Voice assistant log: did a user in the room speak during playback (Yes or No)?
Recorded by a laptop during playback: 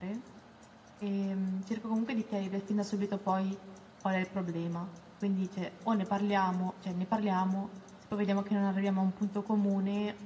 Yes